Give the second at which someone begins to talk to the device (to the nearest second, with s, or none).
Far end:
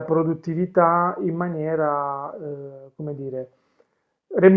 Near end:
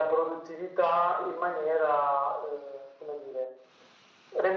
none